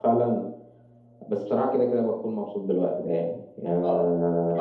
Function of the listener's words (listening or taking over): taking over